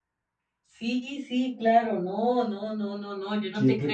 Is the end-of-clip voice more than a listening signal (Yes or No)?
Yes